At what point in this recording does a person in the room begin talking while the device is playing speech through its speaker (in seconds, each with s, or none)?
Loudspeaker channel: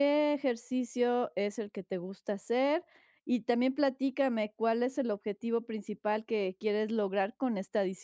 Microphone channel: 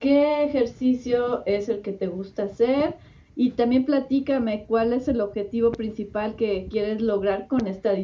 none